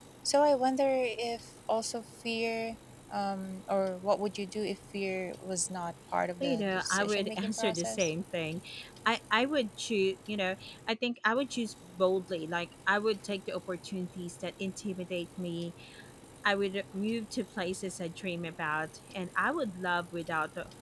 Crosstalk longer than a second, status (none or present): present